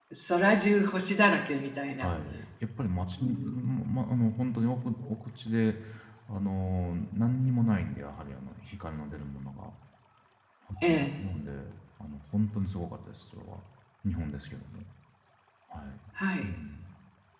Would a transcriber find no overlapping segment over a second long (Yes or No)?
Yes